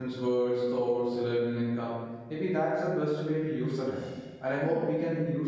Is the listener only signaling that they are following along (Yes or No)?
Yes